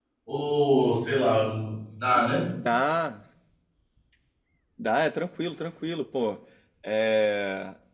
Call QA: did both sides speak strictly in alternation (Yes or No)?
Yes